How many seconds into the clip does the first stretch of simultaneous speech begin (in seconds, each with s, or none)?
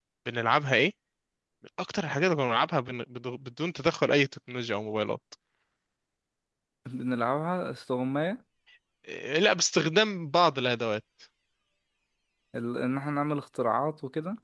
none